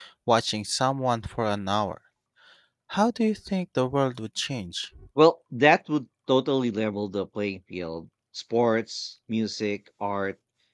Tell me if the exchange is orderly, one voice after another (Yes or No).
Yes